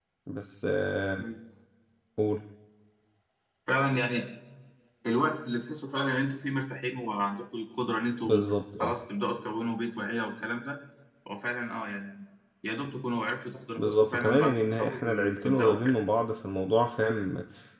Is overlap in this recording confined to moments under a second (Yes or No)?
No